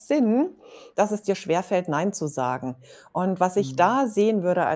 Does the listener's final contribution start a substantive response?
No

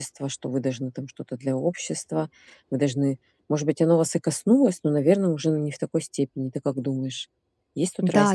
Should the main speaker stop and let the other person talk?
Yes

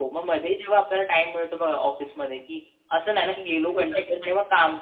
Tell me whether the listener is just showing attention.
Yes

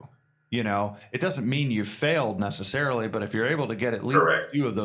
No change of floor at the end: Yes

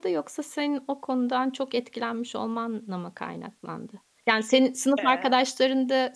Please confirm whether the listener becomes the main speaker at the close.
No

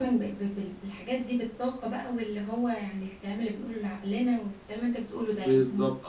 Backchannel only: No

